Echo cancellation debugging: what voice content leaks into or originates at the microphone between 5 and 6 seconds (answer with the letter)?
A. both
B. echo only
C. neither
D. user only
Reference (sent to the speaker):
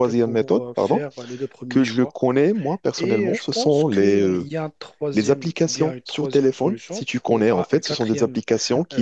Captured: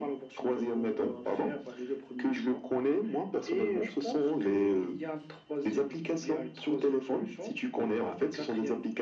B